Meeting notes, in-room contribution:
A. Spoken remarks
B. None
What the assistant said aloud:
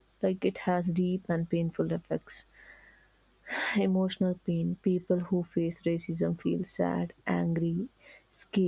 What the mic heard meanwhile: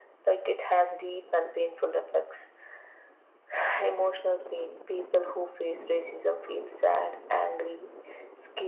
B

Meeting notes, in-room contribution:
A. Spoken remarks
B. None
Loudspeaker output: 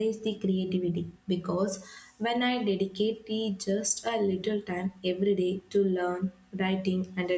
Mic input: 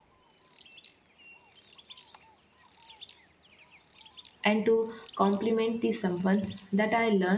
A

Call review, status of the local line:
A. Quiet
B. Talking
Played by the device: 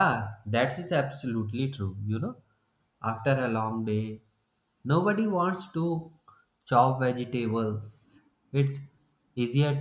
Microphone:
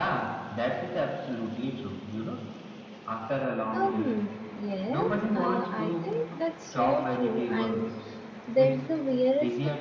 B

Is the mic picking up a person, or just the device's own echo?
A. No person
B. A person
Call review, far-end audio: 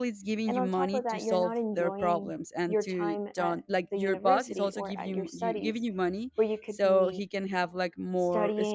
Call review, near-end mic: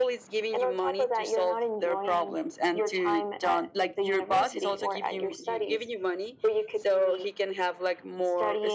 A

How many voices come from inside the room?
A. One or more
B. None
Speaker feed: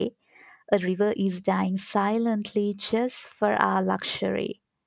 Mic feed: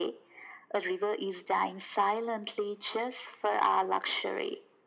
B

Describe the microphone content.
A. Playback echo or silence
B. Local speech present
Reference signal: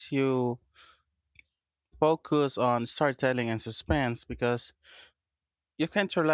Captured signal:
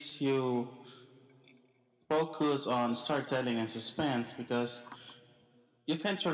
A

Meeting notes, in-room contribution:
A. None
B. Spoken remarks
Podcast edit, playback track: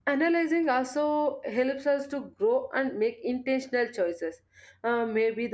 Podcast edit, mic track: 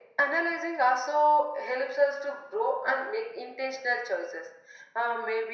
A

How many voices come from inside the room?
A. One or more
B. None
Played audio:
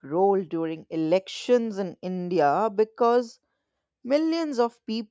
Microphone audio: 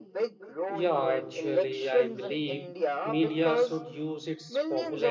A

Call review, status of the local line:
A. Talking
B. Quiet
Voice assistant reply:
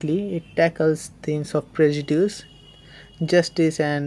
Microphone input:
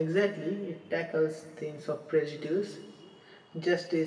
B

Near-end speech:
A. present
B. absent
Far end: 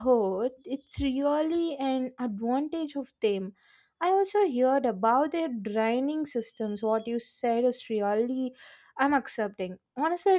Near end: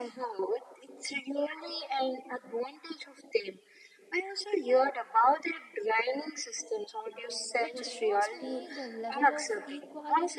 A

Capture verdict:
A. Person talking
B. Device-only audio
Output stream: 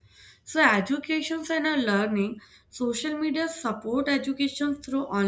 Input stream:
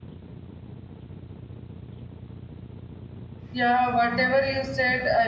A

